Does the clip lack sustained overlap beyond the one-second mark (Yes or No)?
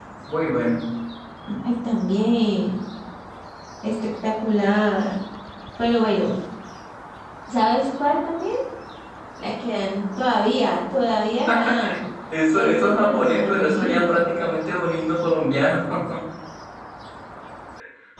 No